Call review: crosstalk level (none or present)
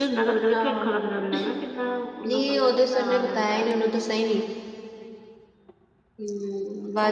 present